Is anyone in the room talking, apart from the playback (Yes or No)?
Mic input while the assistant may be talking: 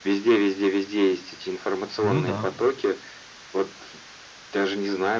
Yes